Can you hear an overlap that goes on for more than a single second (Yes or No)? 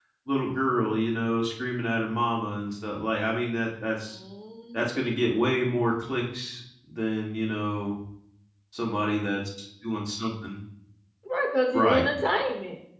No